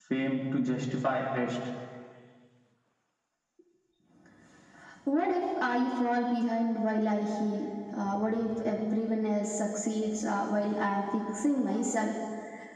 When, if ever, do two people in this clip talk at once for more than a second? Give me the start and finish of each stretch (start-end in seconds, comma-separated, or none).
none